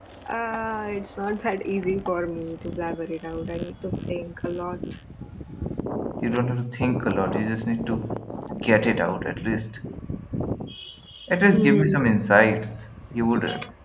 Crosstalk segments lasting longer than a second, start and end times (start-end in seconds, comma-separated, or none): none